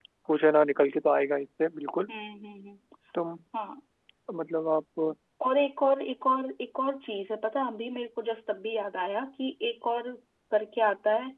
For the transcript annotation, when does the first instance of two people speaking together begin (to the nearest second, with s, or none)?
none